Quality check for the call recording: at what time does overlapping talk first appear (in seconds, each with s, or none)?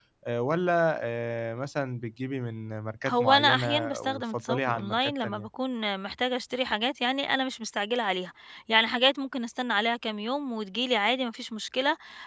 3.1 s